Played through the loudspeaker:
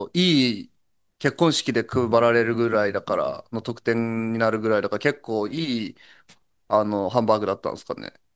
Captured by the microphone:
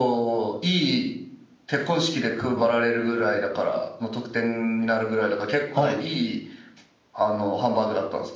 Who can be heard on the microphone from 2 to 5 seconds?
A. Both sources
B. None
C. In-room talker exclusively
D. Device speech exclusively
D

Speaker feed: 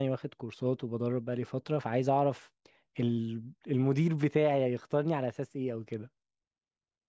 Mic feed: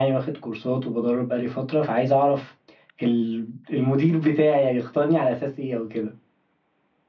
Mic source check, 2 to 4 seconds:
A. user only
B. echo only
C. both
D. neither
B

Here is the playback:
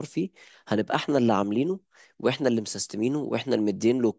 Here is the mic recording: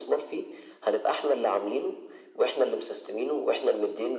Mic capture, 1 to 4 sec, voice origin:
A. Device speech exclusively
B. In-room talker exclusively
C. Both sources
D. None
A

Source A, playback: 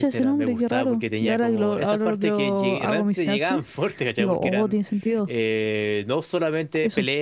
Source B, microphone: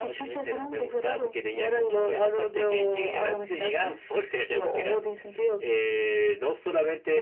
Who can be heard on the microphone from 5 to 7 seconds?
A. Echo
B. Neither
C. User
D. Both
A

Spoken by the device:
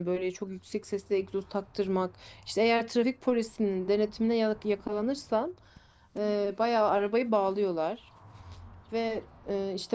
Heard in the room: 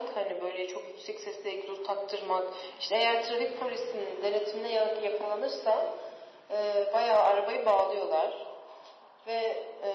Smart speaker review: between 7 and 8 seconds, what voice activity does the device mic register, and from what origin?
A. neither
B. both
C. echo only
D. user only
C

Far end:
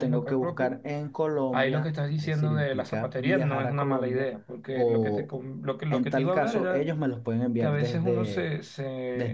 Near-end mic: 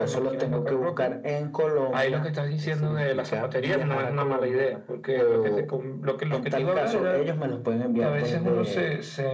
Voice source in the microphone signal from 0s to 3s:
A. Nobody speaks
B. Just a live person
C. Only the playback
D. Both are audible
C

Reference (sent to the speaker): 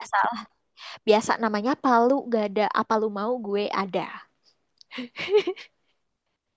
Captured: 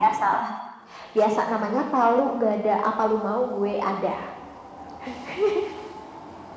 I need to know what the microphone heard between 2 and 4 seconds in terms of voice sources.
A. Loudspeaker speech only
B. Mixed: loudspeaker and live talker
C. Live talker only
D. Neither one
A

